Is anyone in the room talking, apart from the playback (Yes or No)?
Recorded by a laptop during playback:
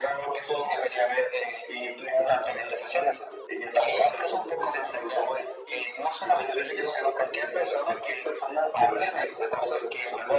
No